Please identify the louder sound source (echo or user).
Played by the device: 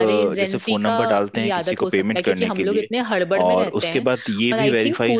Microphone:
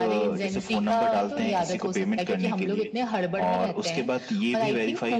echo